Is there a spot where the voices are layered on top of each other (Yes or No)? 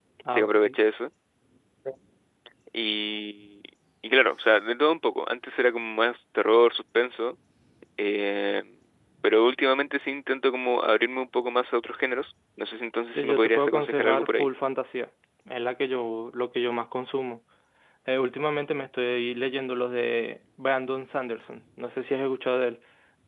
Yes